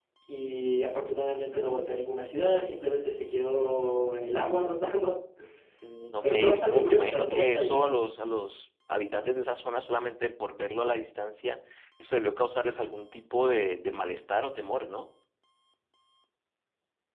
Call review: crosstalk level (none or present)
present